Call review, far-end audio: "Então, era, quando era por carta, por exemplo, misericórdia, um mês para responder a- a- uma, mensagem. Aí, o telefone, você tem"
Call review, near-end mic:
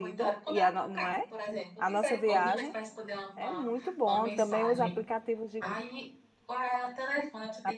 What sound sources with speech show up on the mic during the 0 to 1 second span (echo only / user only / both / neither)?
both